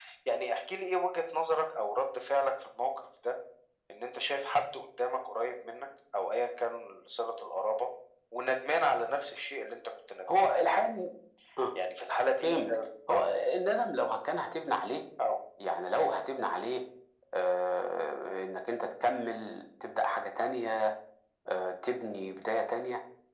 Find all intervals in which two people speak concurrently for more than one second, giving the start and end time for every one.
none

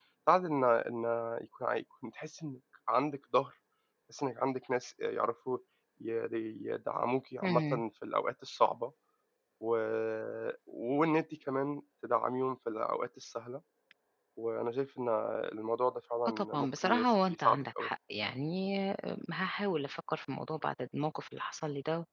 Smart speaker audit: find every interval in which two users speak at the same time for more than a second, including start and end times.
16.3-17.9

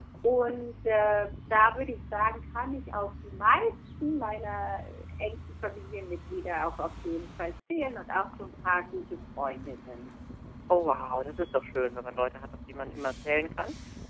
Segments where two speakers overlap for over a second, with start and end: none

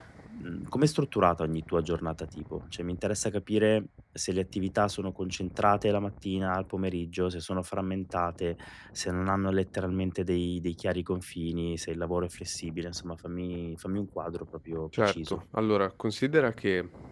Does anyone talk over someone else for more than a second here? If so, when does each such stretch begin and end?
none

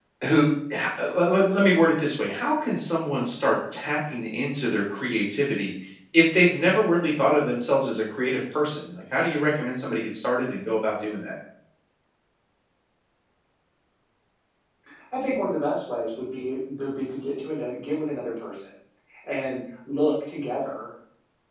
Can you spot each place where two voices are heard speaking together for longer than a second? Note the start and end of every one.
none

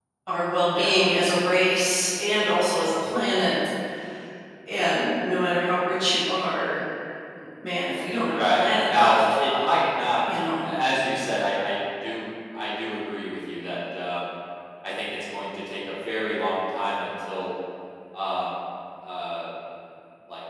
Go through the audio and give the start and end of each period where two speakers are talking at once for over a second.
8.3-9.8

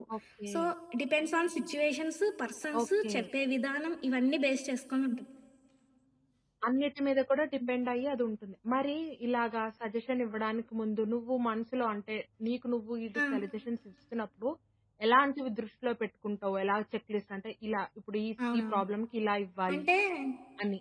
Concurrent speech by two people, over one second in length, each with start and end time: none

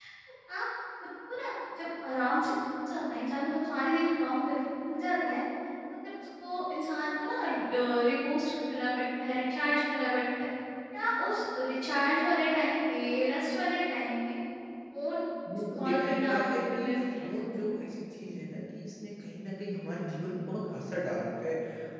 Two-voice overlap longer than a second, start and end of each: 15.7-17.3

